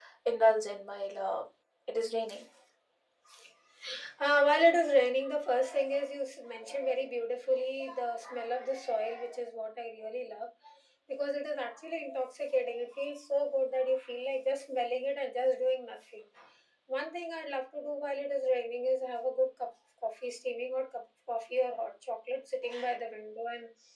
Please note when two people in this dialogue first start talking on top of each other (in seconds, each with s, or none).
none